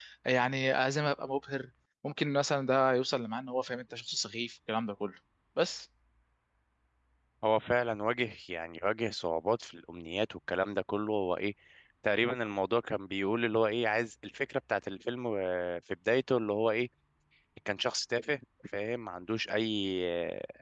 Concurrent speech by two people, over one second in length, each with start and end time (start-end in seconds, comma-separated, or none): none